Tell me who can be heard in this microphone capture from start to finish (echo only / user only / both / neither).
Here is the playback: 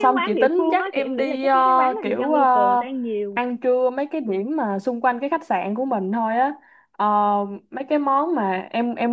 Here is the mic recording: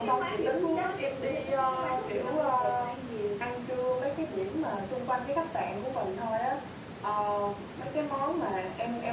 echo only